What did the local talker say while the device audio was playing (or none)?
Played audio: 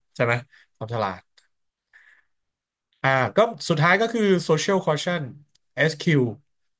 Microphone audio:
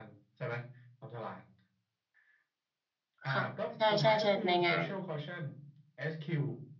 ค่ะใช่ใช่ใช่ในงาน